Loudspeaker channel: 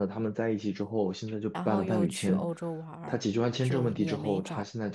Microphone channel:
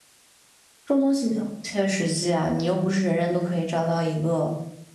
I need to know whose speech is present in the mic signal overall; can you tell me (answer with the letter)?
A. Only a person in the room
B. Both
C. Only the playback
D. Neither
A